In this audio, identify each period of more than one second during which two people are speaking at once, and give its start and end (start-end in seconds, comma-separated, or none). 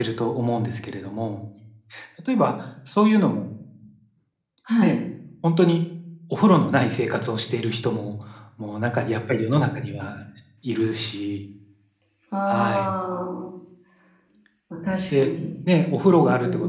none